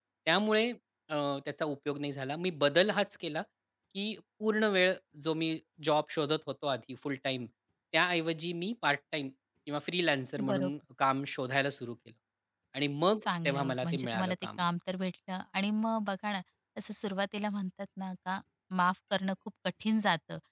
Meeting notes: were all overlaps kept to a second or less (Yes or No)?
No